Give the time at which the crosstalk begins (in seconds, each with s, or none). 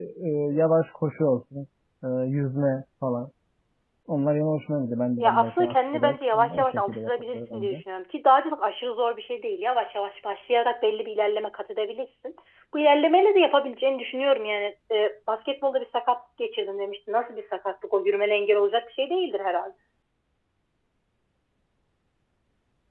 5.2 s